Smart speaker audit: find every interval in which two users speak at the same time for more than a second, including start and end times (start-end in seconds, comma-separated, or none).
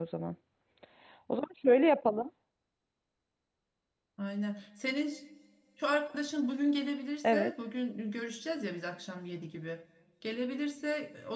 none